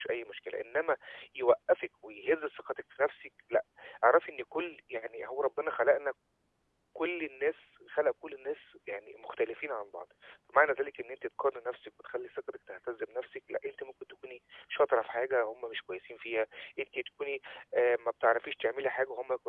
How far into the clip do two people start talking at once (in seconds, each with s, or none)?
none